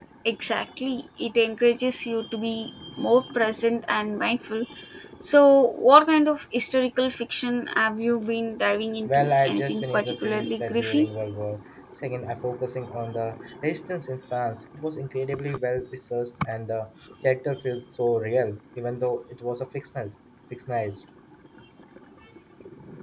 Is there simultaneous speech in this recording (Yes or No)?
Yes